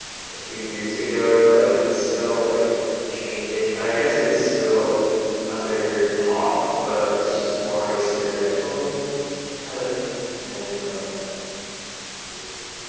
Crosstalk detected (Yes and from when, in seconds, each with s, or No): No